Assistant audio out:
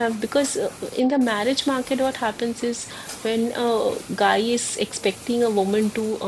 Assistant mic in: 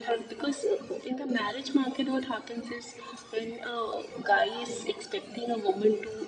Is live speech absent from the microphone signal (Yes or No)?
Yes